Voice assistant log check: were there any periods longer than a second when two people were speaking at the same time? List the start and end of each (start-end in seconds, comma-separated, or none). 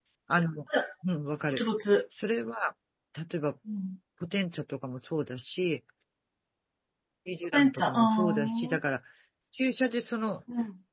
7.5-8.8